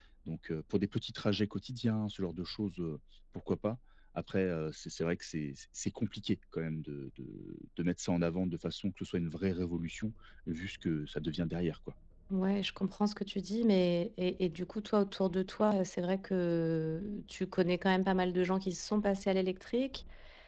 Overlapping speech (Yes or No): No